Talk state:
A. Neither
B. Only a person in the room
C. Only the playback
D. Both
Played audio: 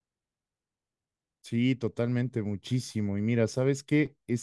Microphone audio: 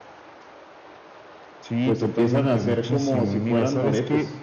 D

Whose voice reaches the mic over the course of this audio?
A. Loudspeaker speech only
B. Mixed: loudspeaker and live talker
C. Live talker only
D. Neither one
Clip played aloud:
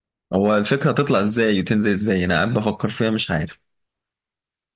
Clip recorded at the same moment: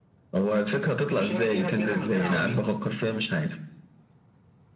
B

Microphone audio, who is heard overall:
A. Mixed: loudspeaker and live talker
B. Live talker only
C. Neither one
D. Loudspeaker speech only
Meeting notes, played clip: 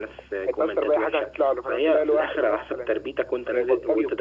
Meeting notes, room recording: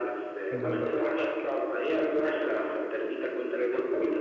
A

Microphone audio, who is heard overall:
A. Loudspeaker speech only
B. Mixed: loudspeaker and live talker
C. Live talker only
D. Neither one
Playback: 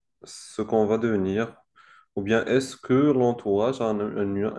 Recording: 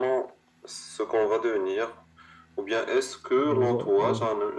B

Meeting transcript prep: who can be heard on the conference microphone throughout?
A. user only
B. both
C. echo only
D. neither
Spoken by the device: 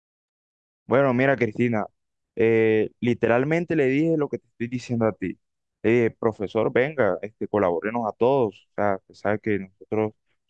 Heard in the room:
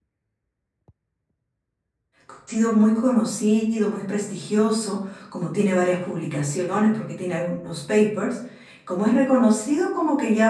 A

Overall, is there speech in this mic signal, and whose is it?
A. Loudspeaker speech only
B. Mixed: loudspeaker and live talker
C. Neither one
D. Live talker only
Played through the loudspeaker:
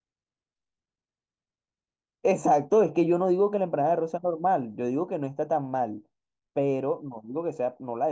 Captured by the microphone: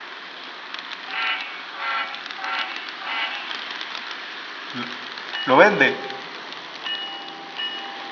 D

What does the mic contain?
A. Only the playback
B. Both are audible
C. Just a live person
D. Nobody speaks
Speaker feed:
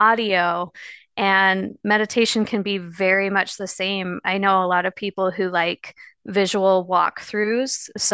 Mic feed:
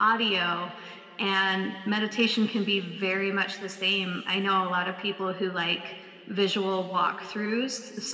A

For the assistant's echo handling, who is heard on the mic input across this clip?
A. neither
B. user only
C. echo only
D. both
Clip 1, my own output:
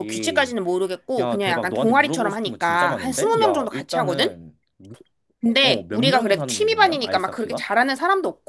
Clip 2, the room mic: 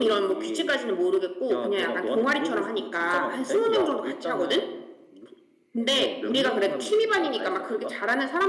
C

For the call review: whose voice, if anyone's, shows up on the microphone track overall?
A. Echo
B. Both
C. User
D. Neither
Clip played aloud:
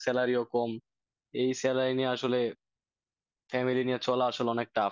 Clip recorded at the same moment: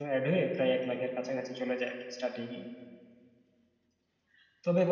C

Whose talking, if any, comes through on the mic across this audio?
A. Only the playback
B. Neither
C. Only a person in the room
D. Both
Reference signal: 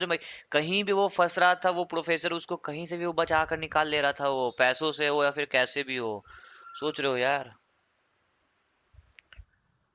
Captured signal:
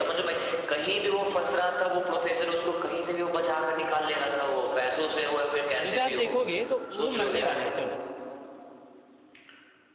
D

